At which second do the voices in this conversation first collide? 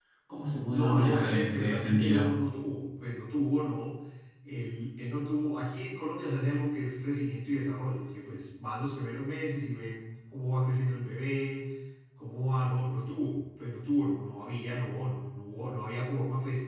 0.7 s

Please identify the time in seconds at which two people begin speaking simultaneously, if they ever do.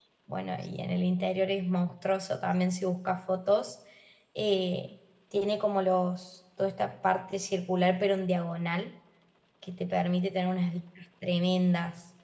none

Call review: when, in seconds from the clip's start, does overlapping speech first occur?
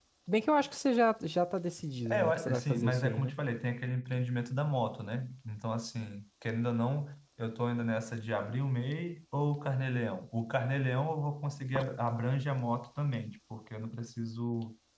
2.1 s

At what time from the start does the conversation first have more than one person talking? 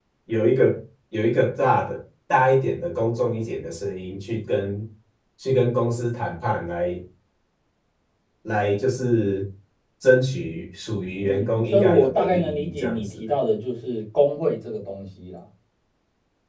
11.2 s

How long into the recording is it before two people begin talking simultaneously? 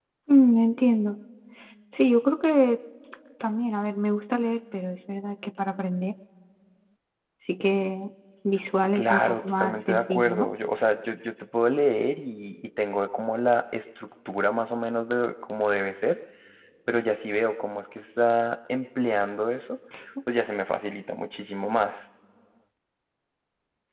8.9 s

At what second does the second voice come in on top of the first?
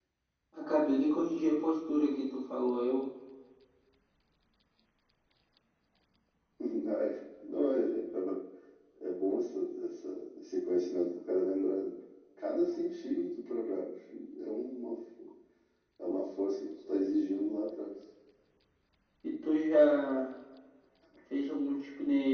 none

